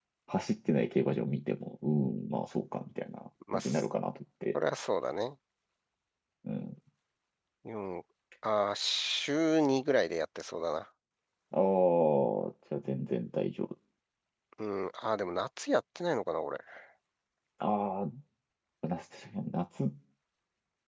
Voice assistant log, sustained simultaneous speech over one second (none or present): none